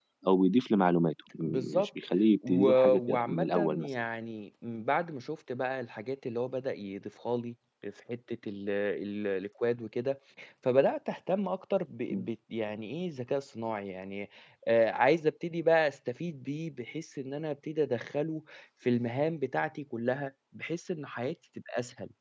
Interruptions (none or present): present